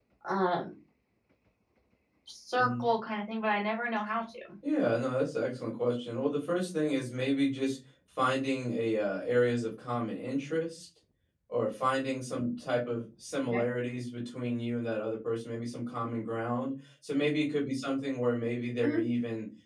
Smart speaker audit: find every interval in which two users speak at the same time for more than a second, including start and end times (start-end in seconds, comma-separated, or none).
none